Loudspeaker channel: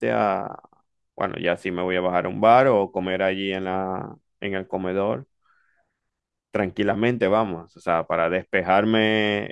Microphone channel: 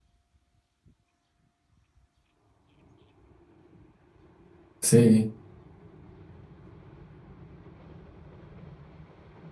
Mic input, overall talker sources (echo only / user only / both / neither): user only